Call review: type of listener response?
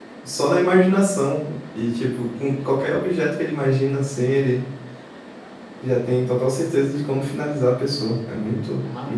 taking over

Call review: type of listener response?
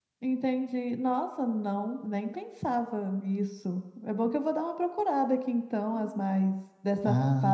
taking over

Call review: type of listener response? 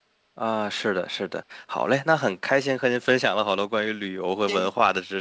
listening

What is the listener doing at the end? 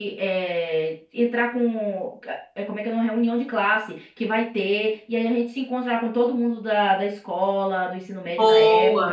listening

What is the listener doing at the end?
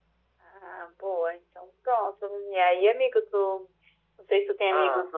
listening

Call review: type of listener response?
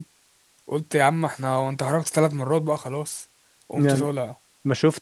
taking over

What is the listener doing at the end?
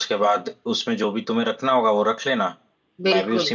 listening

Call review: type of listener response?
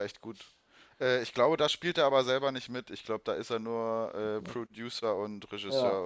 taking over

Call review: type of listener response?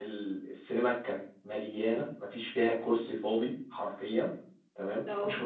listening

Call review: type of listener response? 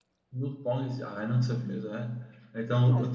listening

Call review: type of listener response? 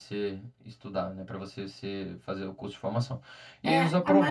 taking over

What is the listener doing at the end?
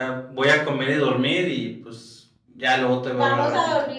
taking over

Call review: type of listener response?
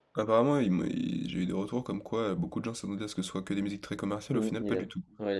taking over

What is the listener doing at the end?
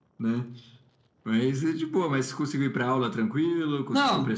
taking over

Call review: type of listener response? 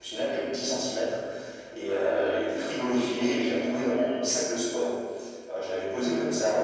listening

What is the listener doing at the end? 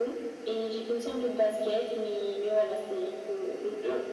taking over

